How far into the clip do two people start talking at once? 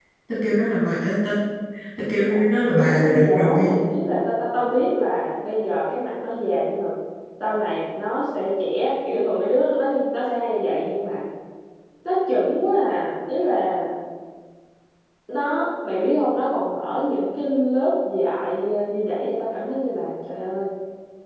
2.1 s

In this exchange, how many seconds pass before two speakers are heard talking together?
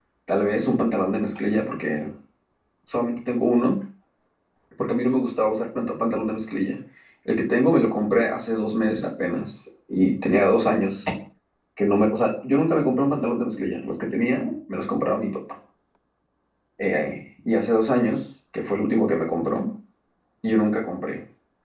none

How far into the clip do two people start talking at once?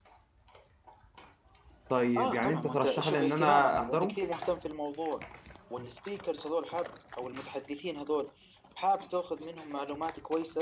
2.2 s

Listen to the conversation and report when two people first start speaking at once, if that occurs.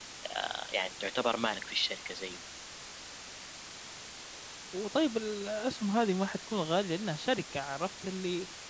none

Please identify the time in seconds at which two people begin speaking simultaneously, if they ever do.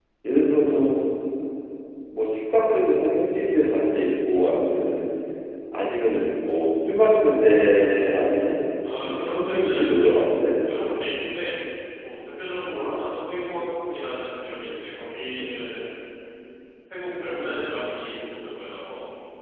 9.0 s

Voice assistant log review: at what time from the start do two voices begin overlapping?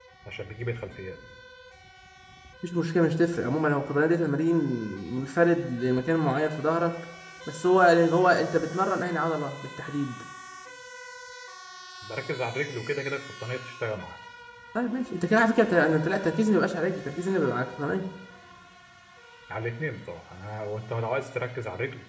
none

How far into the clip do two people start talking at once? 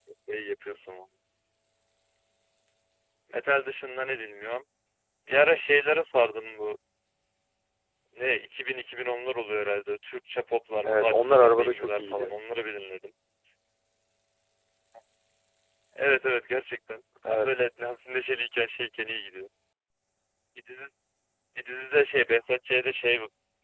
10.8 s

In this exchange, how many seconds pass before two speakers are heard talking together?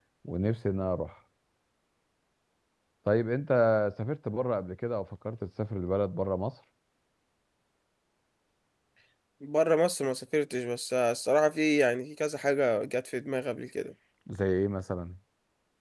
none

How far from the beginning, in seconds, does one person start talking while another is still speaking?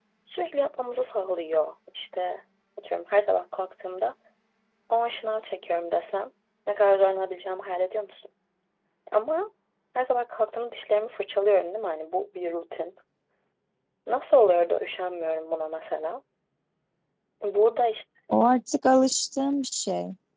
none

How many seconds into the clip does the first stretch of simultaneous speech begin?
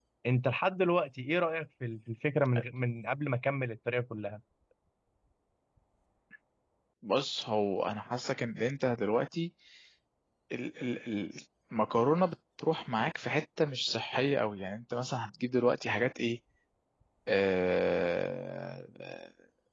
none

